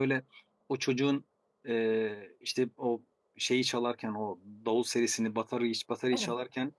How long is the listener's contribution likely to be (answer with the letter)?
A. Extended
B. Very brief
B